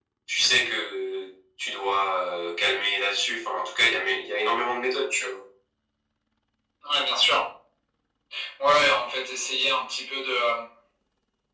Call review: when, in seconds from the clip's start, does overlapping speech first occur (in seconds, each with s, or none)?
none